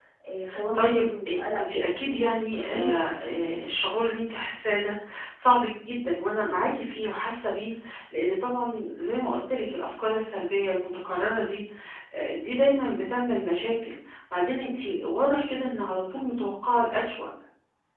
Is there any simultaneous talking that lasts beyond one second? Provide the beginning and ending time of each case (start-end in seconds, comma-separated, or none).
0.8-3.0